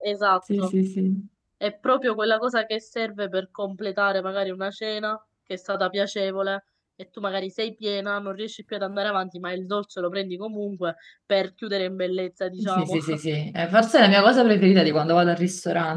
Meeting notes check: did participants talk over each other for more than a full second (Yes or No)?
No